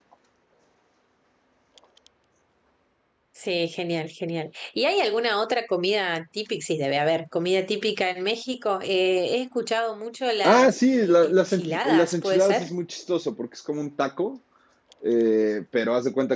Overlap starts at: 10.4 s

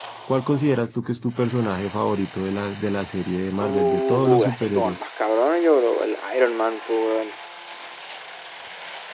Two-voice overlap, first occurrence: 3.6 s

